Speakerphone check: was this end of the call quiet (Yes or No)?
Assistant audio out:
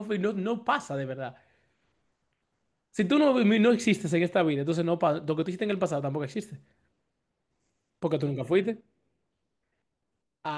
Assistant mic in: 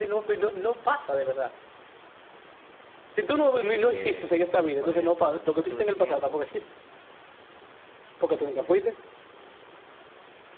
No